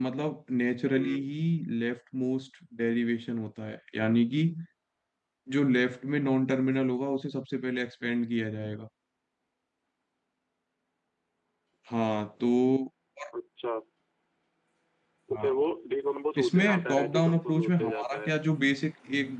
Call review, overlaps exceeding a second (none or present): present